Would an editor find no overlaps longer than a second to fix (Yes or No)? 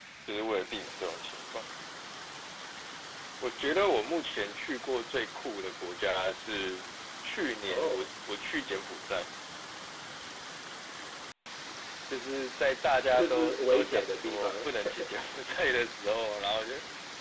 No